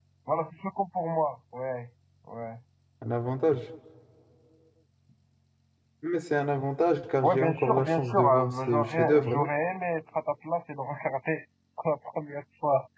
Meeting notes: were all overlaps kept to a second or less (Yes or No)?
No